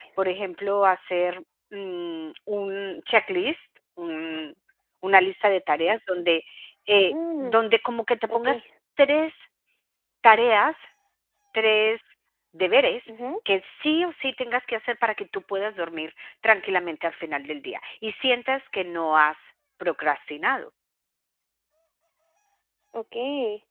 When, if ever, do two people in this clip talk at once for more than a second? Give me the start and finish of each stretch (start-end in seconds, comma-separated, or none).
none